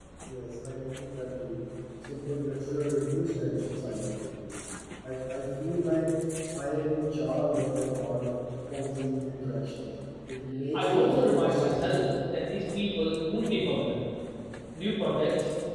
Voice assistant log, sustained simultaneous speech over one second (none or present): present